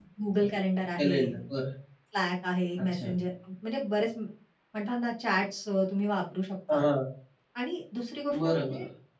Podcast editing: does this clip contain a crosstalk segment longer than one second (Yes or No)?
No